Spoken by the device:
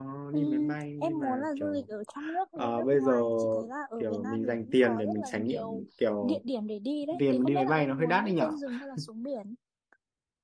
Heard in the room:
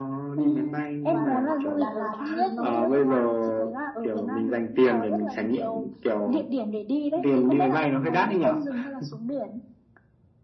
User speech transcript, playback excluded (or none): và đồ ăn của Đà Lạt thì nó cũng